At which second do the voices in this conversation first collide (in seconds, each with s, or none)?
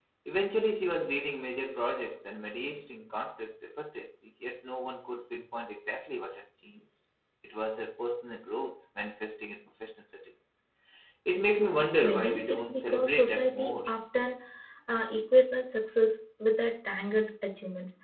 12.0 s